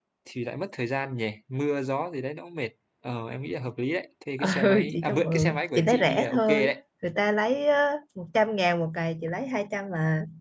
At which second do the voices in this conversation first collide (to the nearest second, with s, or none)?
4 s